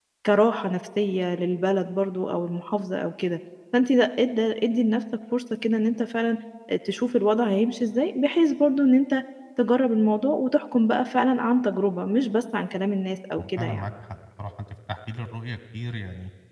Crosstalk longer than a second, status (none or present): none